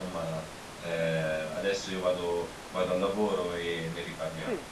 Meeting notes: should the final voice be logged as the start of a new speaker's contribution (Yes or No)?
Yes